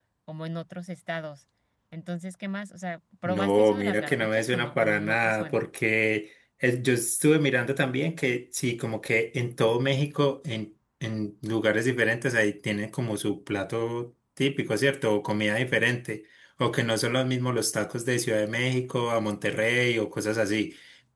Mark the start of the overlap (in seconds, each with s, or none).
3.2 s